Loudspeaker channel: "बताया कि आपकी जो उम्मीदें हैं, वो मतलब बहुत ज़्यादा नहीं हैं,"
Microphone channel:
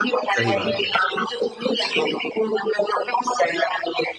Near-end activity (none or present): present